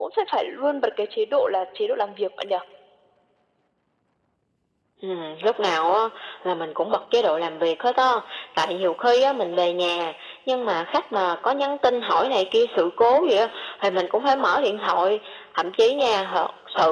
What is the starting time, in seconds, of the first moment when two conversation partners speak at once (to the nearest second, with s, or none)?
none